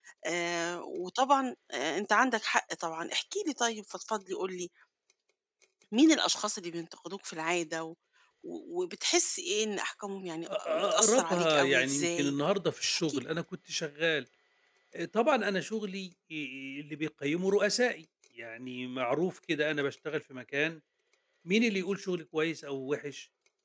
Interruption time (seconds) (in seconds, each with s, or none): 10.8 s